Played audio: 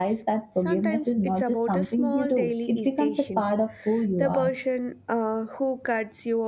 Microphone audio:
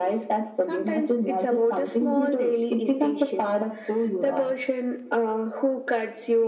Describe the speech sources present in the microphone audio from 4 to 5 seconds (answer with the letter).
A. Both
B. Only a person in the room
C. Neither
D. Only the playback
D